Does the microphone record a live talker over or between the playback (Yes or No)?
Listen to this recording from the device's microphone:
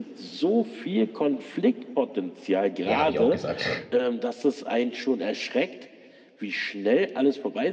Yes